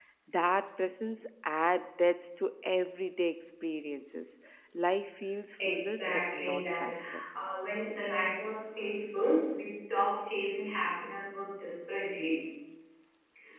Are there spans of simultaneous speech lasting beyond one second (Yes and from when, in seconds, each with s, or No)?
Yes, from 5.6 s